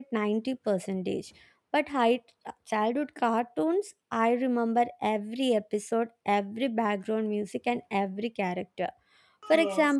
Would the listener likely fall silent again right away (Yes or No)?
Yes